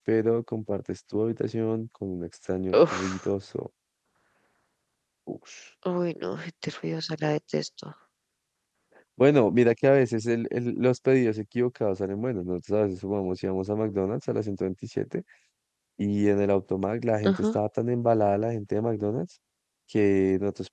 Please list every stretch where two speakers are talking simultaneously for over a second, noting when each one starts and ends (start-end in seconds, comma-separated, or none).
none